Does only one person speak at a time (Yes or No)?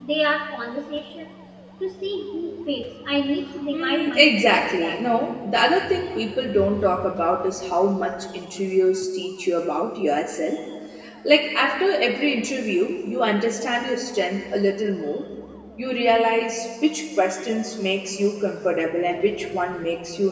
No